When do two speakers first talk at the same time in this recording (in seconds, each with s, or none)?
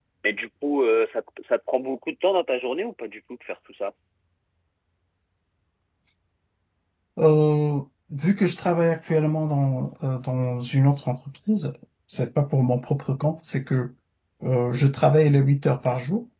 none